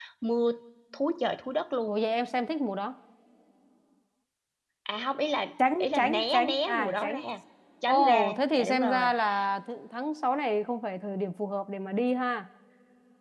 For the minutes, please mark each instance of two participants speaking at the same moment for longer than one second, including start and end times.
5.8-7.2, 7.9-9.1

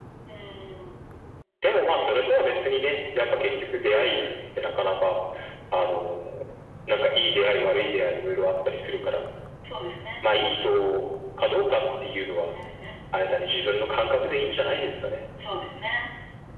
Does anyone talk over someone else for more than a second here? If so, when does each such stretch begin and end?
none

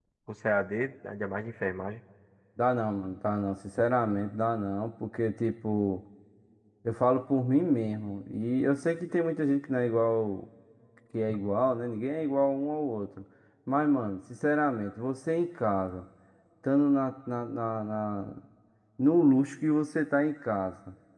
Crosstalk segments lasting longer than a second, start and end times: none

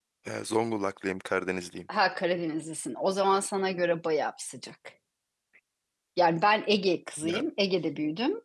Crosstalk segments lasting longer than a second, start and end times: none

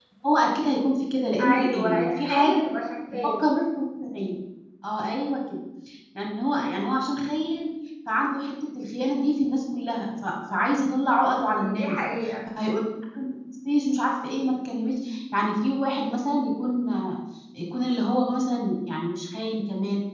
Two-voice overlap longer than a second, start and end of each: 1.4-2.7

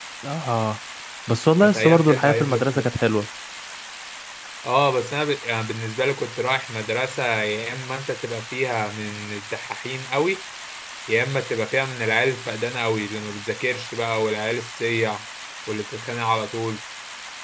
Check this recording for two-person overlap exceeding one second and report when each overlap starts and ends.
1.6-2.9

